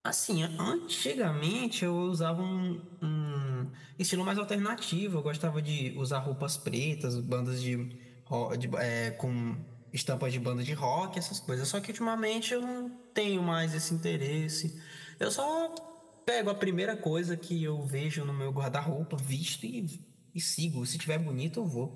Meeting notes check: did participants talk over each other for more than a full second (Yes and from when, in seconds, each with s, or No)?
No